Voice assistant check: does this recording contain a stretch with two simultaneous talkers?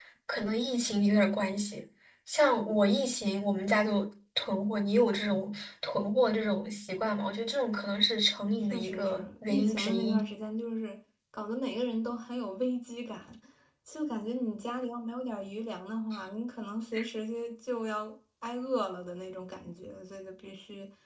Yes, from 8.7 s

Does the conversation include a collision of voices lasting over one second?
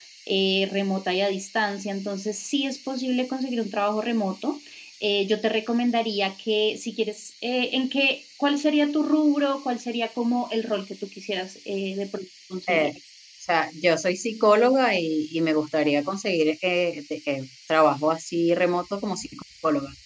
No

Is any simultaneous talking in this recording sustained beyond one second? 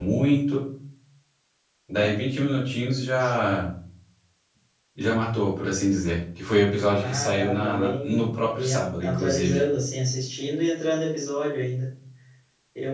Yes, from 7.0 s

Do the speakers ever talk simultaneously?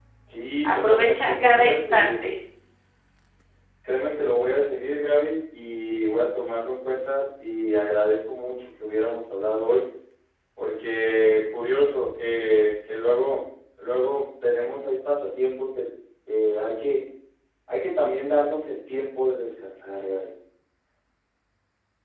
Yes, from 0.7 s

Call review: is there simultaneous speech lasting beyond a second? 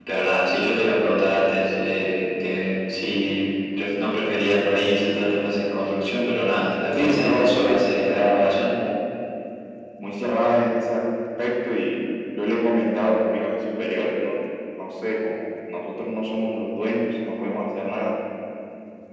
Yes, from 7.0 s

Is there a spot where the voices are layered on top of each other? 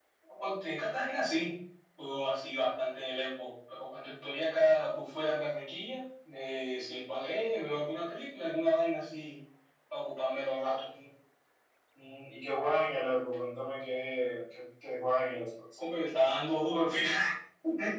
No

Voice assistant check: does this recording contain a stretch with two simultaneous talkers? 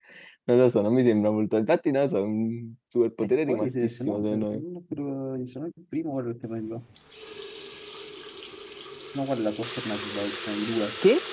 Yes, from 3.2 s

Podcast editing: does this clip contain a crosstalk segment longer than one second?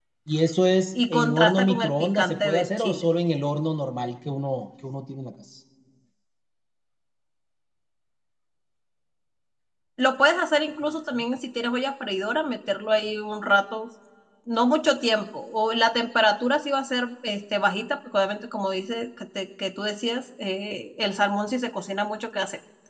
Yes, from 1.1 s

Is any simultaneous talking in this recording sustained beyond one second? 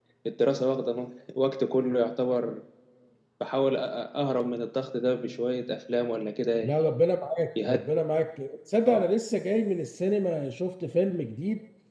No

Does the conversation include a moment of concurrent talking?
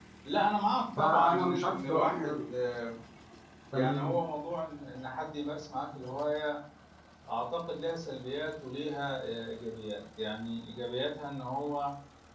Yes, from 1.0 s

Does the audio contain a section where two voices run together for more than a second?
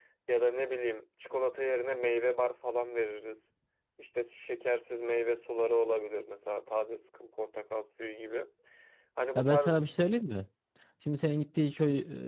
No

